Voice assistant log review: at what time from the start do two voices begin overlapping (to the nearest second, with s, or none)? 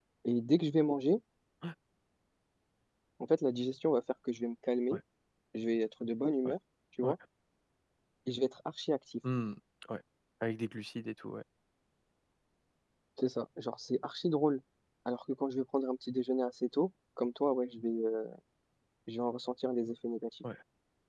none